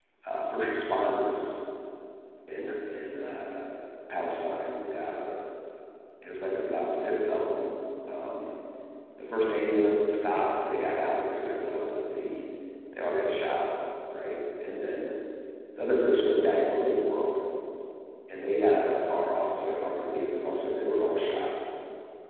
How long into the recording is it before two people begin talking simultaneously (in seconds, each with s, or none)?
none